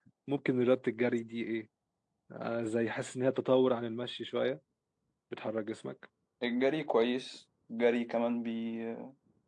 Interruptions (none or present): none